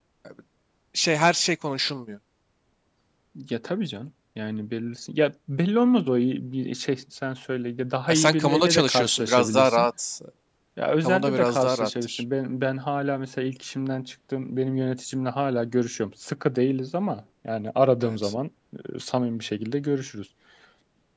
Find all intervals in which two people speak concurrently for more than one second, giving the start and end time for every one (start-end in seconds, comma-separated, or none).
8.1-9.9, 11.0-12.2